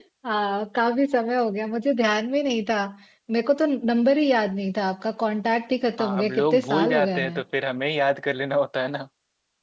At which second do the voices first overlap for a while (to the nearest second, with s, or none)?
6 s